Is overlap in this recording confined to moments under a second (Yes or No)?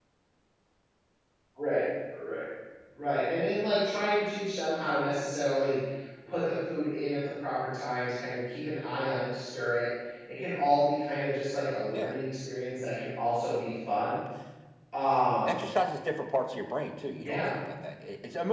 Yes